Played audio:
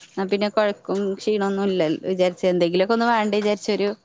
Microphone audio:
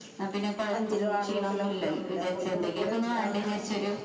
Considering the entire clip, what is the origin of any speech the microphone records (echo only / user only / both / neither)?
both